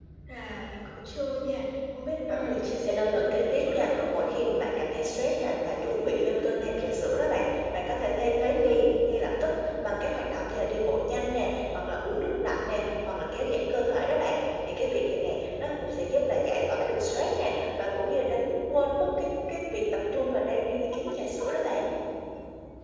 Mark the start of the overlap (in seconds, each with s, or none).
2.3 s